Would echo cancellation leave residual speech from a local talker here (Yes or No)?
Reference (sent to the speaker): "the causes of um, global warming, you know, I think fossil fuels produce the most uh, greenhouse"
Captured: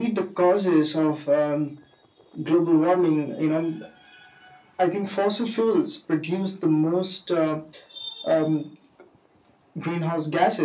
No